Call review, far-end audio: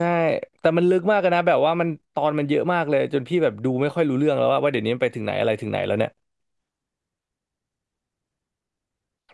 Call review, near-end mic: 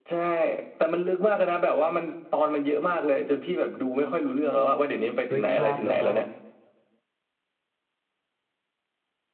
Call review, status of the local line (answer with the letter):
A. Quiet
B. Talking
B